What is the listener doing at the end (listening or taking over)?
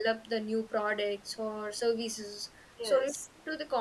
listening